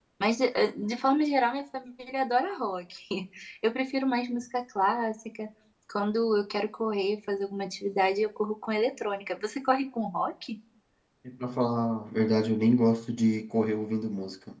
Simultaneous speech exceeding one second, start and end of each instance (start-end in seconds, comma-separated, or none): none